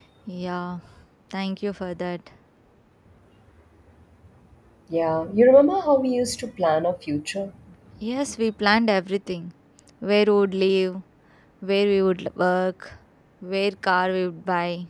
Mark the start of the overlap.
none

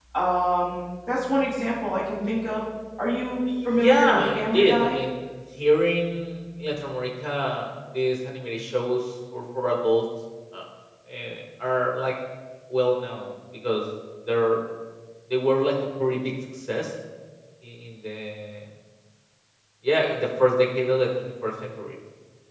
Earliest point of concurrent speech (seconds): 3.6 s

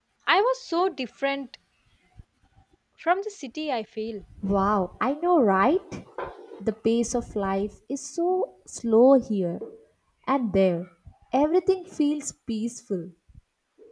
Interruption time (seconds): none

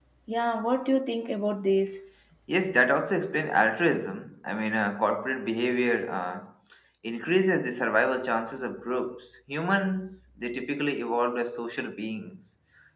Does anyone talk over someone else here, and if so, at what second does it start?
none

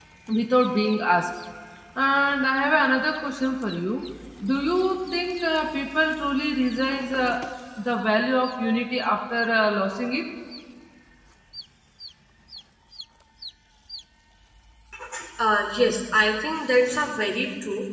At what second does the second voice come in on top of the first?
none

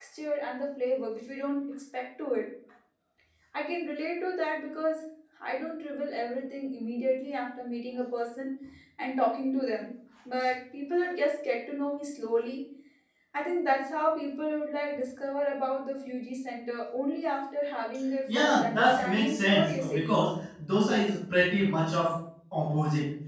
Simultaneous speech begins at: 18.3 s

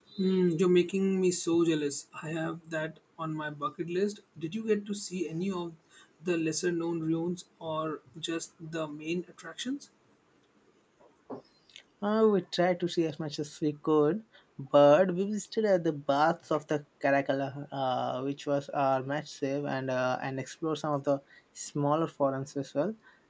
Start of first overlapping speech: none

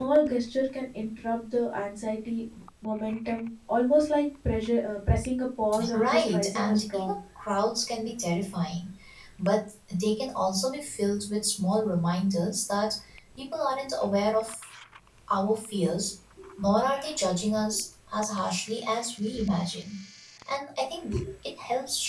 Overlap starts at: 5.7 s

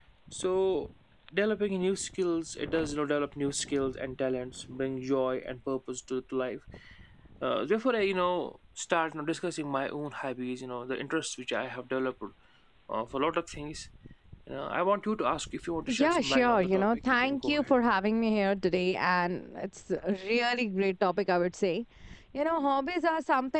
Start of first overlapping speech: 15.9 s

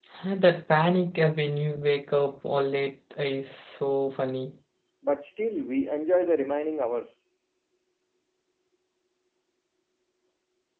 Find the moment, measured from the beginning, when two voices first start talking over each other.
none

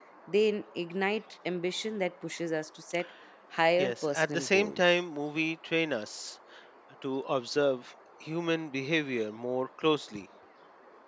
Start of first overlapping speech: 3.8 s

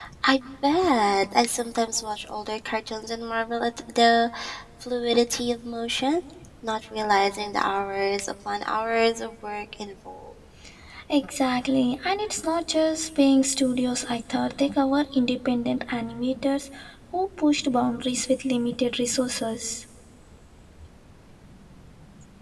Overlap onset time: none

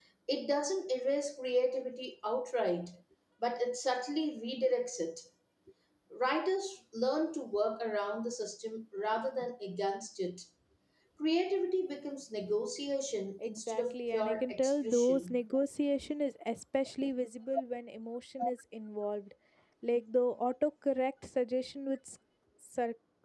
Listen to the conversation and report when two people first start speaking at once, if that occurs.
13.4 s

